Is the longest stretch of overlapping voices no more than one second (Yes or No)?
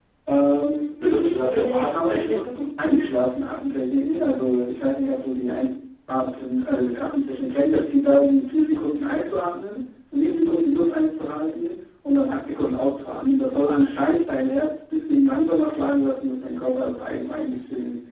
No